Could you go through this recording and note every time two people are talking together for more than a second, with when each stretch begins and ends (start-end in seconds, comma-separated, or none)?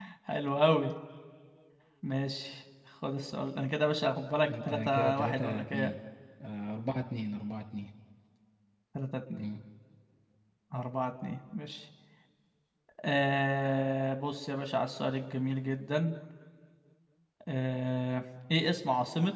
4.5-5.9